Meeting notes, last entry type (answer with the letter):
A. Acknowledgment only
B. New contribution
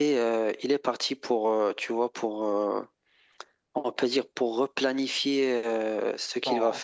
B